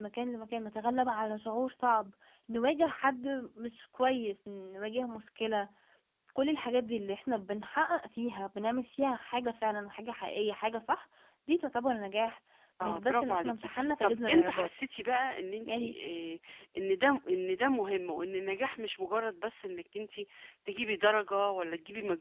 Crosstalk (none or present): present